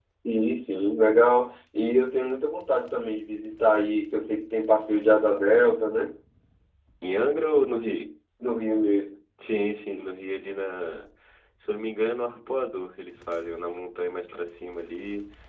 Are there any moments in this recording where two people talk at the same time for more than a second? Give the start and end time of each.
none

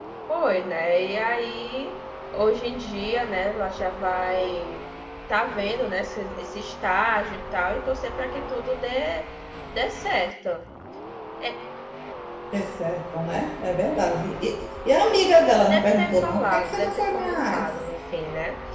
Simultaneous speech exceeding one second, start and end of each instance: 15.6-17.7

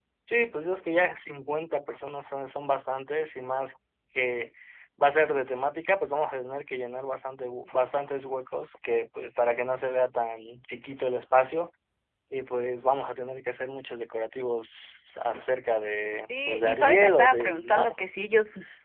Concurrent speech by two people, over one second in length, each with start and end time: 16.3-17.9

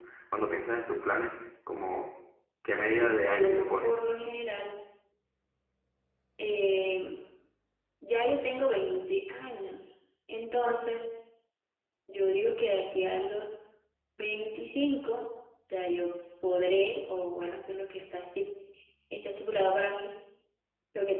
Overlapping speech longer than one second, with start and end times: 2.7-4.0

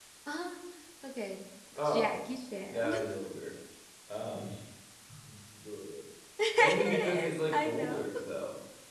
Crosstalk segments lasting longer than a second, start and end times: 6.6-8.1

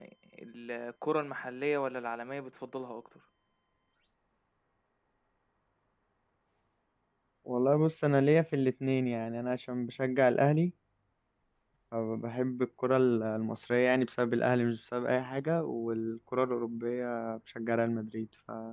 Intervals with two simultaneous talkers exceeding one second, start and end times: none

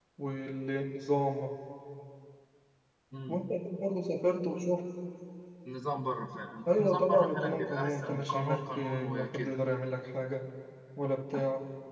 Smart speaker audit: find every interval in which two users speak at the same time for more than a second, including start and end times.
6.8-9.5

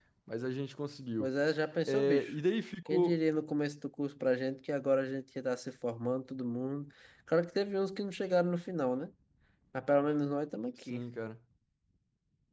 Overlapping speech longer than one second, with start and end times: none

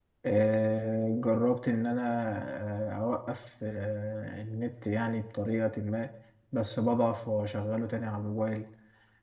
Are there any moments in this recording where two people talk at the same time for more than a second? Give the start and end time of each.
none

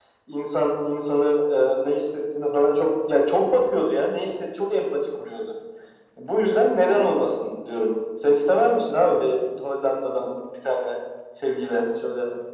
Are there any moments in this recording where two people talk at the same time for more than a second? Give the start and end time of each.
none

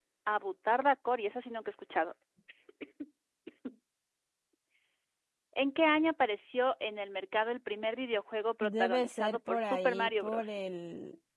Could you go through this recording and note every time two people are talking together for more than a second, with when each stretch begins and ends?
8.6-10.6

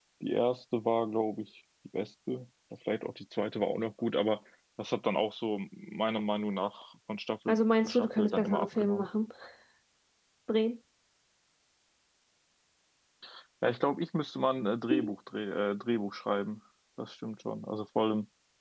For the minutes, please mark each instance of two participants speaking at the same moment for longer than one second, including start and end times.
7.5-9.1

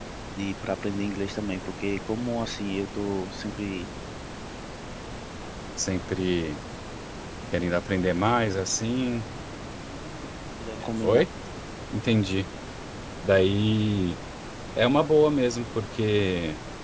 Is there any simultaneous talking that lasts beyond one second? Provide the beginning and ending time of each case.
none

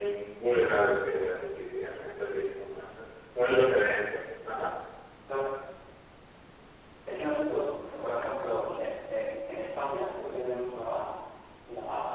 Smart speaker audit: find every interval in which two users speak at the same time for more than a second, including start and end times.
none

